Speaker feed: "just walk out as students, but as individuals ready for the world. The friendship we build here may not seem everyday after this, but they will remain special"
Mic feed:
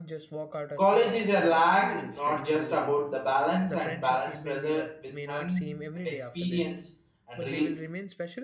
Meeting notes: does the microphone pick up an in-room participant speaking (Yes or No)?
Yes